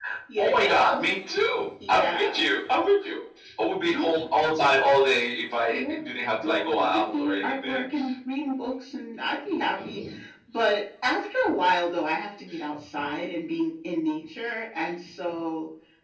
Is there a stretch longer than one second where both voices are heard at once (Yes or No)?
Yes